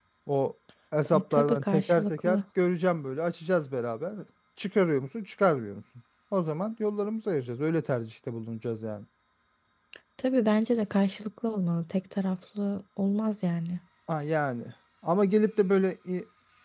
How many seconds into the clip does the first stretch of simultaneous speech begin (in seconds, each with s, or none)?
1.1 s